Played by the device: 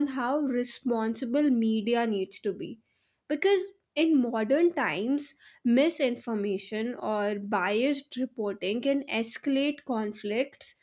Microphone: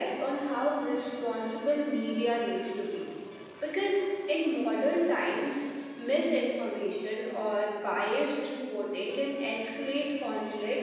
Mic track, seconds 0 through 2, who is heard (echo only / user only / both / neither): echo only